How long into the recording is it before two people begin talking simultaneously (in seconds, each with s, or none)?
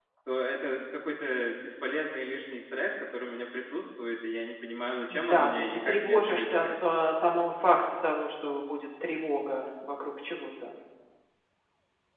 5.1 s